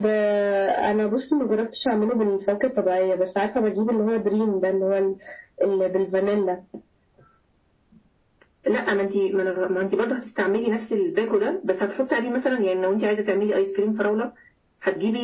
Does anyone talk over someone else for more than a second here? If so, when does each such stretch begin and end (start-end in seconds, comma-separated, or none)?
none